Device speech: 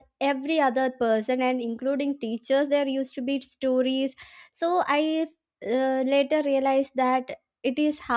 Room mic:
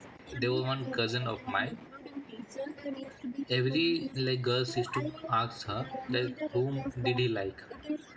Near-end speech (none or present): present